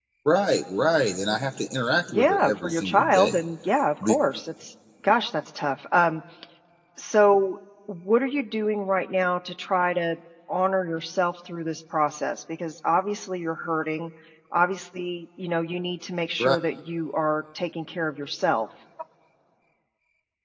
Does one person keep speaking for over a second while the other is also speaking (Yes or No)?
Yes